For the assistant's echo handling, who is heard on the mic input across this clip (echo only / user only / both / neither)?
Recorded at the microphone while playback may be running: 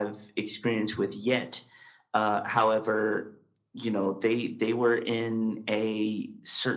echo only